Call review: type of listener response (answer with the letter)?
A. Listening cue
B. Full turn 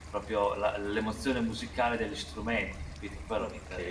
B